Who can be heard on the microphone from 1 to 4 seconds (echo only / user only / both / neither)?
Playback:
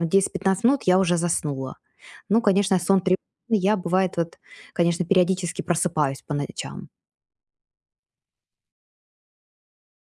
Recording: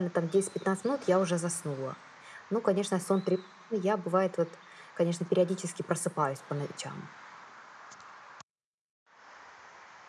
echo only